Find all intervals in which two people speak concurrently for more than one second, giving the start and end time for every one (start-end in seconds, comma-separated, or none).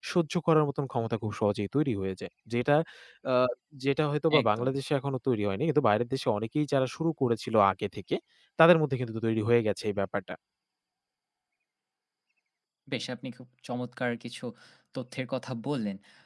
none